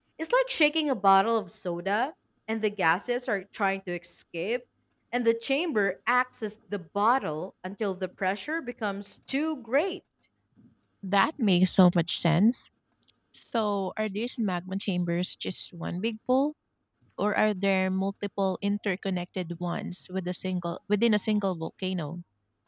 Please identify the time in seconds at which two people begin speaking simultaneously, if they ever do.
none

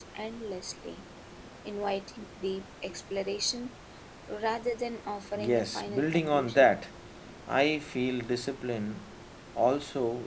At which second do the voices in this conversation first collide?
5 s

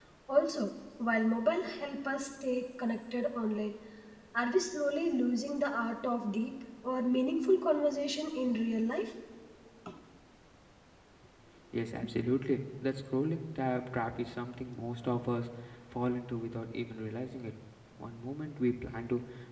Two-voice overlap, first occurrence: none

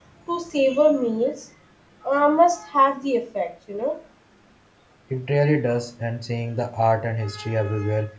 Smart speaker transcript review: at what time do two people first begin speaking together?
none

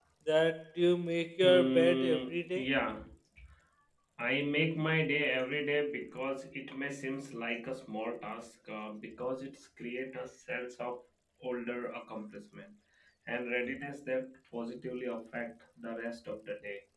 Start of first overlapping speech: 1 s

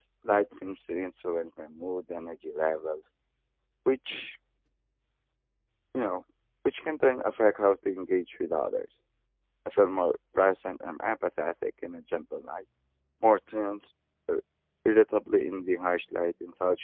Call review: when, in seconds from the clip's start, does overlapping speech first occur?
none

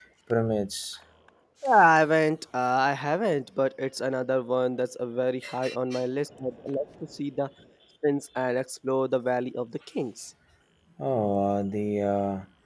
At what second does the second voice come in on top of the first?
none

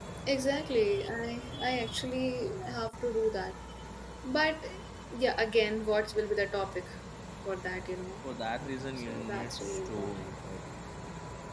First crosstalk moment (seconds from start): 9 s

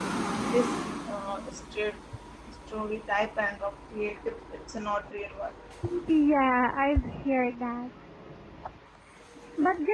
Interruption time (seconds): none

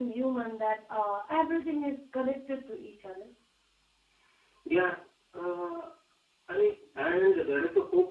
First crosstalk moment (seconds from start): none

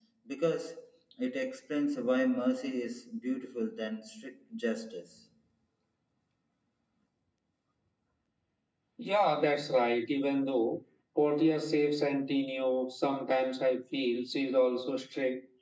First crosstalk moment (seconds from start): none

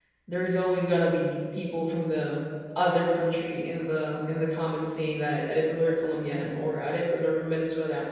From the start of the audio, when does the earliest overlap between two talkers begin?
none

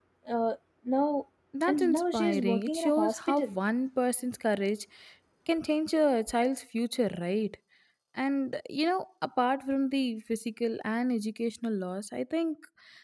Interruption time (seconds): 2 s

